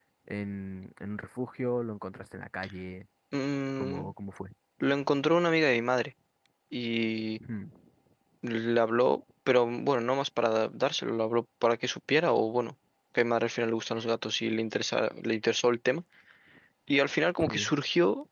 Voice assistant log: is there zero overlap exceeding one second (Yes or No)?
Yes